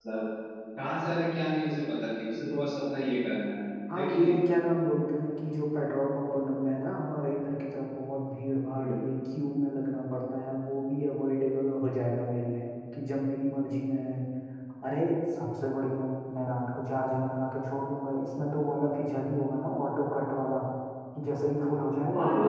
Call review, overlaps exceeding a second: none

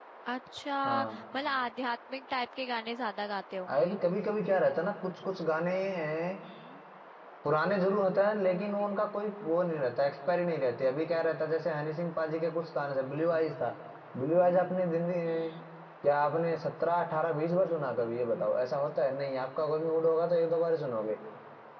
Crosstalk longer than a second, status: none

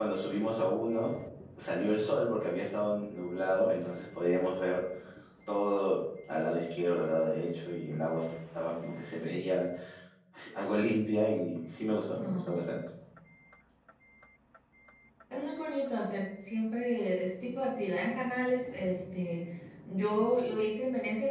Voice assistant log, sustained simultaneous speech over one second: none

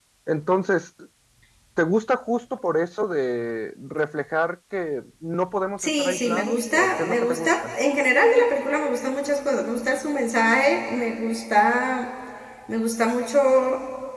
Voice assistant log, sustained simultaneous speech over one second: present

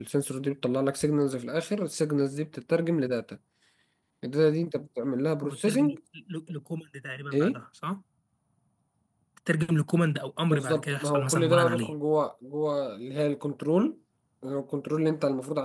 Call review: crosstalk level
present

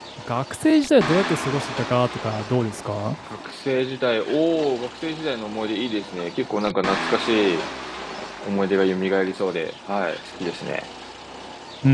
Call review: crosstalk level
none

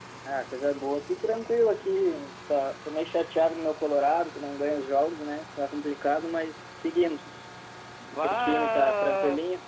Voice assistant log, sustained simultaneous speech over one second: present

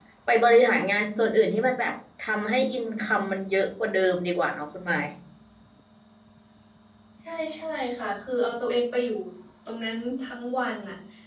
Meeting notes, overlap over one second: none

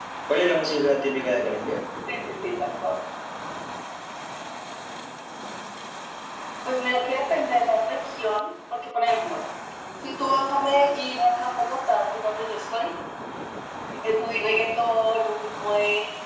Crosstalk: none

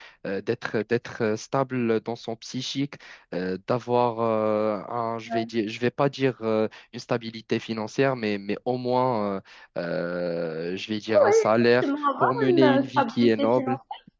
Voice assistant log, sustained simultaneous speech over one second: present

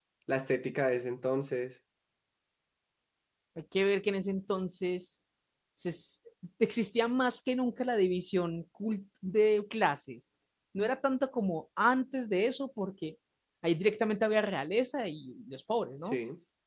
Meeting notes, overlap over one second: none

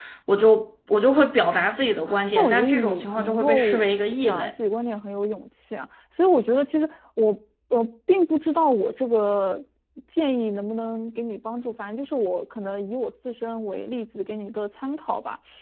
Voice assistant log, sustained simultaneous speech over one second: present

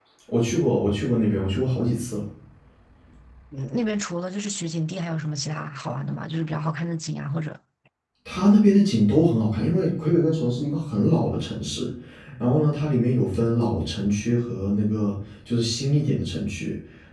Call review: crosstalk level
none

